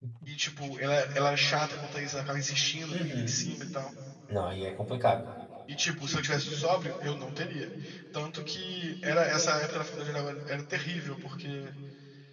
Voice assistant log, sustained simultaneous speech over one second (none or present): none